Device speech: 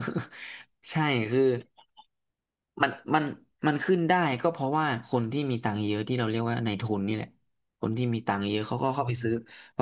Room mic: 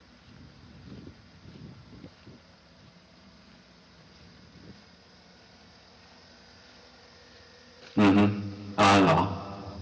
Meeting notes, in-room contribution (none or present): present